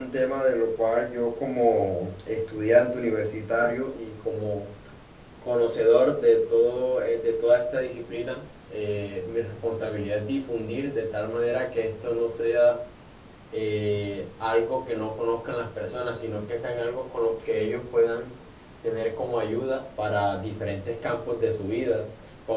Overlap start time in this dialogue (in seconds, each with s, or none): none